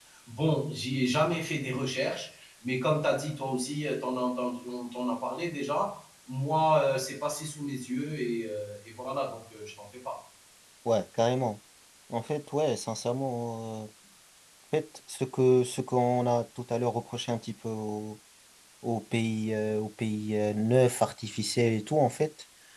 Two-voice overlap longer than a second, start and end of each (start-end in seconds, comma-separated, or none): none